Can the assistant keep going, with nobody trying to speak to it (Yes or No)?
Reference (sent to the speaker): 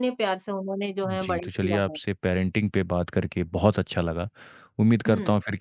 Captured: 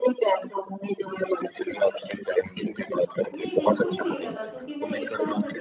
No